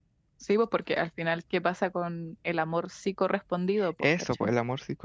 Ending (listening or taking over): taking over